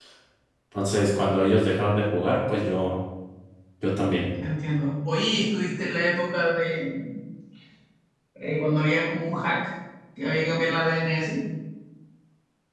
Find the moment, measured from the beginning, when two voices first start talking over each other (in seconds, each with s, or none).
none